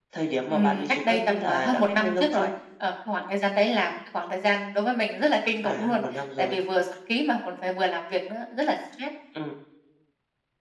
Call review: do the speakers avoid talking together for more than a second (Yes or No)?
No